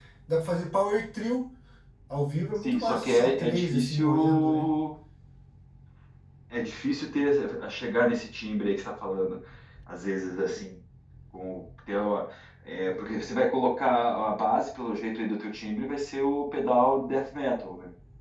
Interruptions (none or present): present